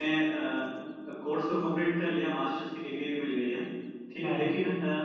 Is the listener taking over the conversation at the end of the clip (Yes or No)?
No